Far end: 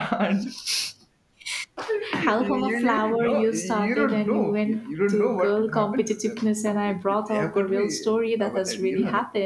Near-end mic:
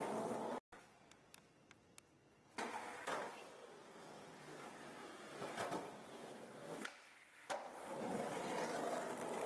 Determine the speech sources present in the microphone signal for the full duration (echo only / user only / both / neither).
neither